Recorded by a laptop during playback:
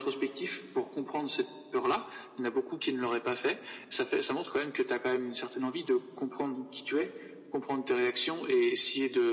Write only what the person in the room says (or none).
none